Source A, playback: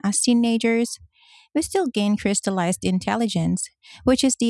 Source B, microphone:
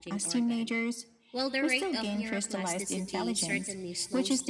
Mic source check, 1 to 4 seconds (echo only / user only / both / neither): both